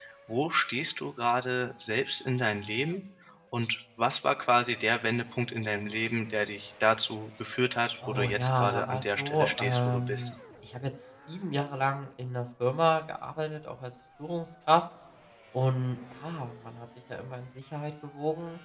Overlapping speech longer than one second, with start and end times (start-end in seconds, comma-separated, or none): 8.1-10.3